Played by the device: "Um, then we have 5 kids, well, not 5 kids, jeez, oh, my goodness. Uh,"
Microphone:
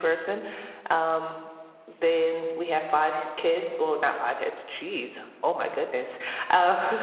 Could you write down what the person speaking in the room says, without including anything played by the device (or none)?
none